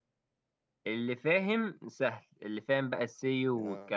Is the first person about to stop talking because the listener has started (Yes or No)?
No